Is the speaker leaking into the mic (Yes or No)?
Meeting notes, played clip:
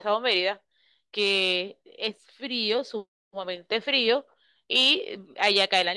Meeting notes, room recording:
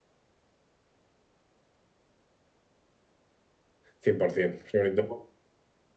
No